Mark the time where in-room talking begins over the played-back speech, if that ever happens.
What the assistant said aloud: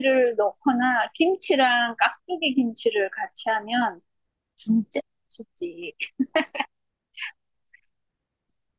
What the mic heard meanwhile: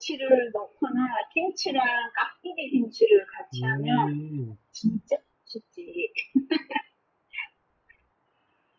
3.5 s

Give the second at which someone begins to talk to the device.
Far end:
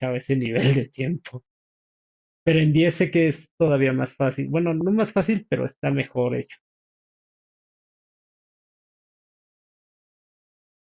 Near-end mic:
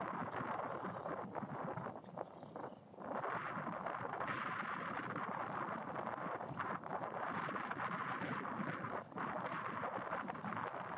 none

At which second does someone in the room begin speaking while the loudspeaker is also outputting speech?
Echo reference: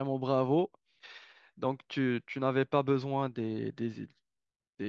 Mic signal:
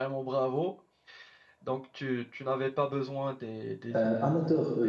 4.0 s

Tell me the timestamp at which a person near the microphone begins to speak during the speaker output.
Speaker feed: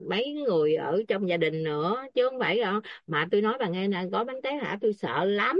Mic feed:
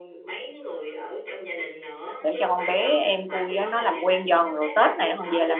2.2 s

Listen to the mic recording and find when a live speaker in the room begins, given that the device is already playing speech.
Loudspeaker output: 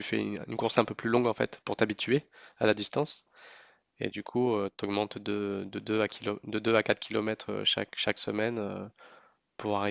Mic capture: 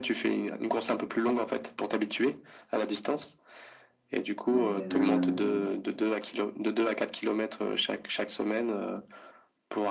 4.5 s

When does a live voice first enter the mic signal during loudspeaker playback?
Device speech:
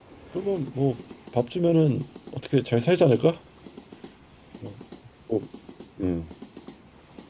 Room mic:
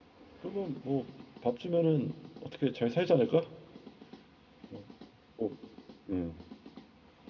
none

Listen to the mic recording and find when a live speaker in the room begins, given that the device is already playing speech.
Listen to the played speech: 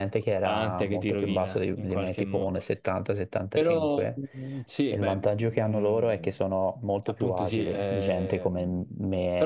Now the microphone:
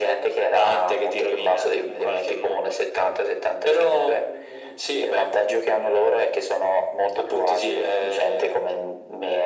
none

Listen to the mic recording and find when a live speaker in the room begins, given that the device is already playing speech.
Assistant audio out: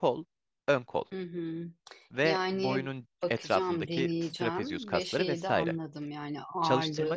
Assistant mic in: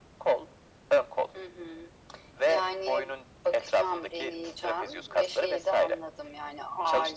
none

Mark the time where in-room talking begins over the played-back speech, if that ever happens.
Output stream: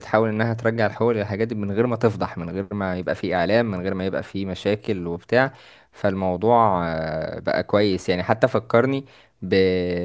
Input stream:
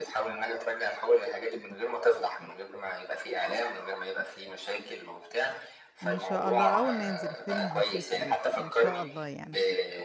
6.0 s

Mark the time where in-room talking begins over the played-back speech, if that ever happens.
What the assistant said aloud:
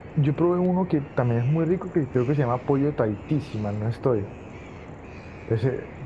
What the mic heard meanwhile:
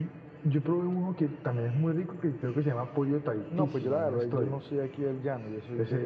3.5 s

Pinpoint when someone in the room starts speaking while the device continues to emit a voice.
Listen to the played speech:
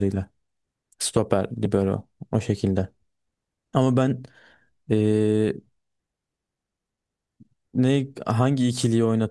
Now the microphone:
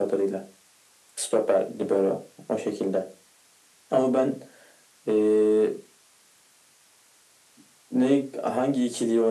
none

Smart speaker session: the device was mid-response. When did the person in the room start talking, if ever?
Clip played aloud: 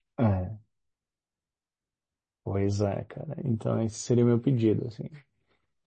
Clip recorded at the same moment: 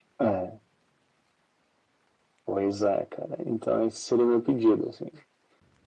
none

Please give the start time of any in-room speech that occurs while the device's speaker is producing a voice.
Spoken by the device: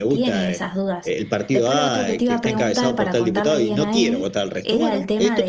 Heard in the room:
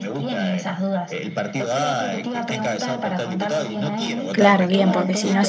4.3 s

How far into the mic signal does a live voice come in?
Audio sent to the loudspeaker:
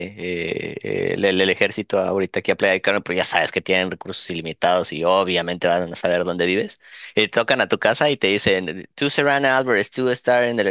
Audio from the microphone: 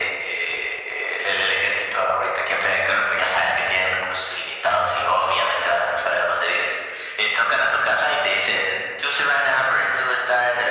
none

